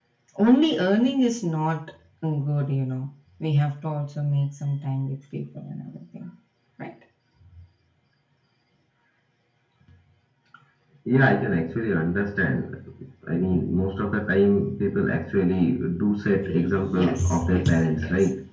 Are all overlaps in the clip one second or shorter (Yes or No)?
No